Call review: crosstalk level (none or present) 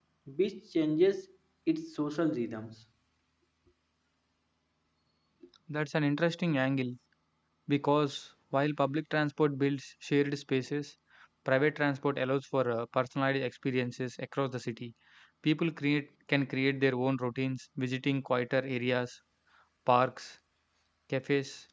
none